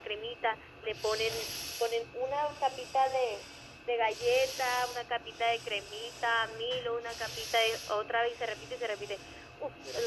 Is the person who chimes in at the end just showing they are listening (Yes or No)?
Yes